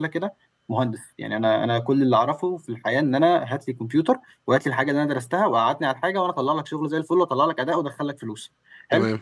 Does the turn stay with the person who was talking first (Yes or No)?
Yes